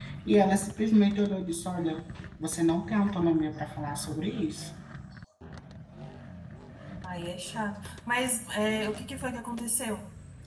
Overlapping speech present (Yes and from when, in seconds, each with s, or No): No